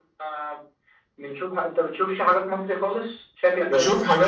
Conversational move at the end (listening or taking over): taking over